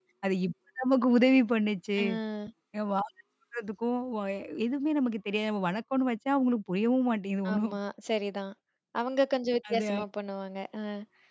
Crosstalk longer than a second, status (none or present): none